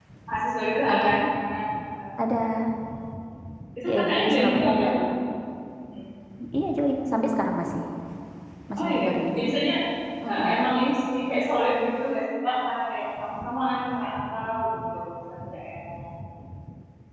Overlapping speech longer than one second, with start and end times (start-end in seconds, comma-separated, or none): 3.9-5.1